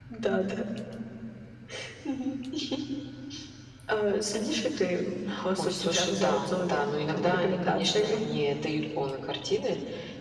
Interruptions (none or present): present